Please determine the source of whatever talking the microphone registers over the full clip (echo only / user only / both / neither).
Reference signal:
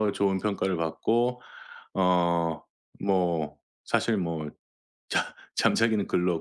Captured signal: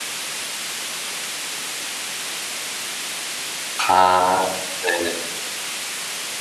user only